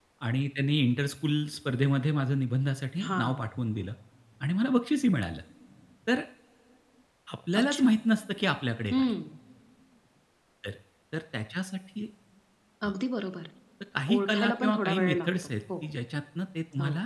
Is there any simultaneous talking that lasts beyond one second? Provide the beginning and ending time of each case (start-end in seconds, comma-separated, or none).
14.1-15.5